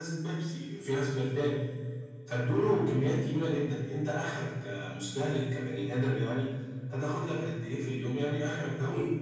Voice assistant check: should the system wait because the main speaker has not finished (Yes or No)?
Yes